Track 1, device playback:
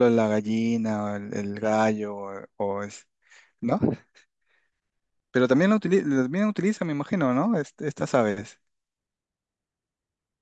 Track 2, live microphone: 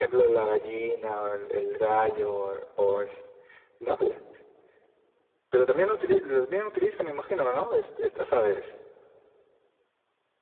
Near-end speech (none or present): none